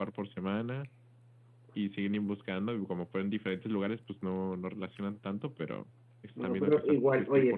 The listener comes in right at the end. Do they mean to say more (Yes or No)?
Yes